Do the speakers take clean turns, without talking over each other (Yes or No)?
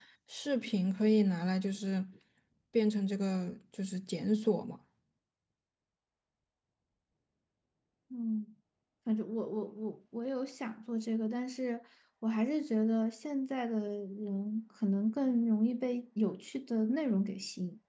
Yes